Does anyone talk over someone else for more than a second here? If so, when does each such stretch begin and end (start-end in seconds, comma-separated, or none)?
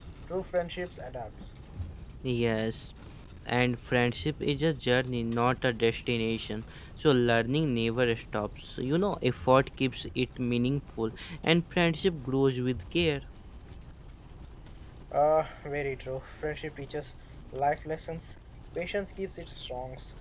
none